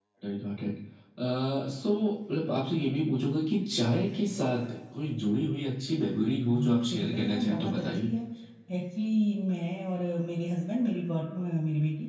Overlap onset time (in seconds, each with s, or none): 6.5 s